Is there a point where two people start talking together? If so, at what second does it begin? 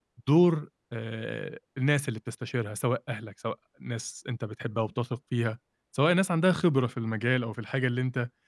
none

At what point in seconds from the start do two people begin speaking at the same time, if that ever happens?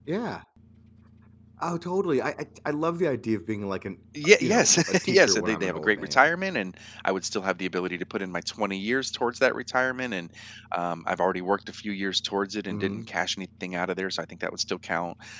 4.4 s

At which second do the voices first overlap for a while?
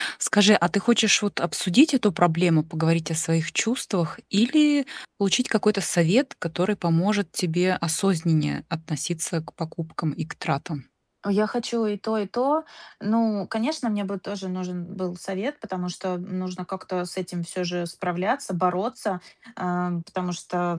none

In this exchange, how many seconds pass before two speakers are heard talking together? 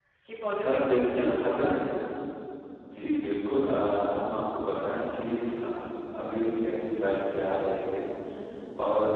0.6 s

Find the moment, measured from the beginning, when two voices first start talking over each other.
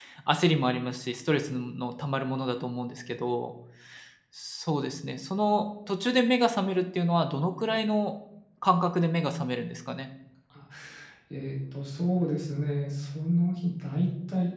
none

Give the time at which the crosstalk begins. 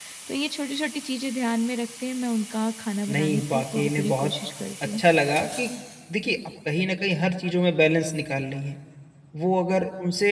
3.1 s

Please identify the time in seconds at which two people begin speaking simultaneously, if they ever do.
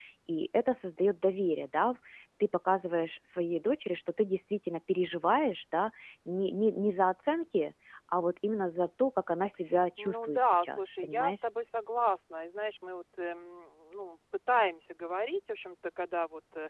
10.0 s

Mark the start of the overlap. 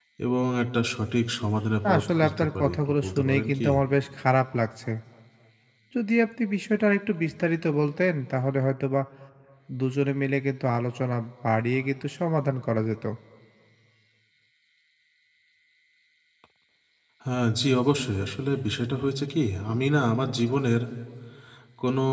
1.8 s

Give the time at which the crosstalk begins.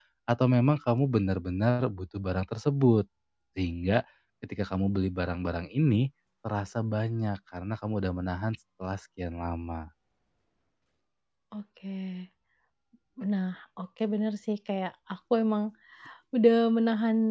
none

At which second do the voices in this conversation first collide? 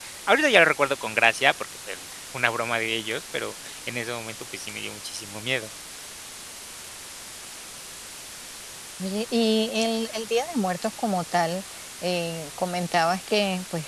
none

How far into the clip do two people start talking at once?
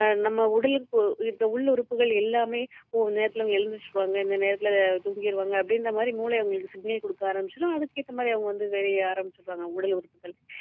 none

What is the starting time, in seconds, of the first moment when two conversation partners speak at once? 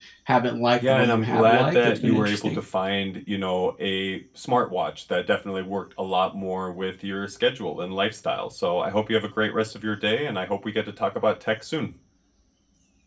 0.9 s

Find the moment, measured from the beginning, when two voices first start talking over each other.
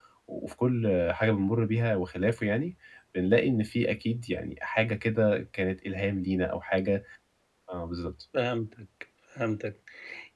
none

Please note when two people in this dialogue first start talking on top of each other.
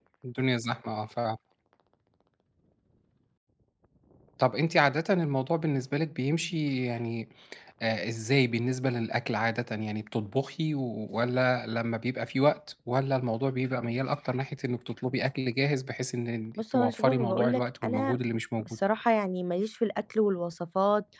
16.6 s

